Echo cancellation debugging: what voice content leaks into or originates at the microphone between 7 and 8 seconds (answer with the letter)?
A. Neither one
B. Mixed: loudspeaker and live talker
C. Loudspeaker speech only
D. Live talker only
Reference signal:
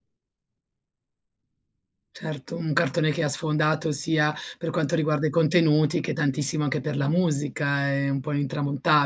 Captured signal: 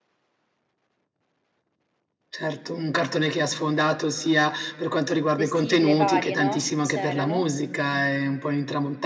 B